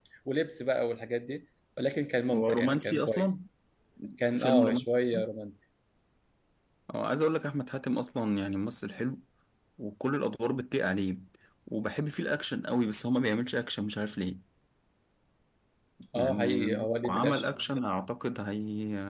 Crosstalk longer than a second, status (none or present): present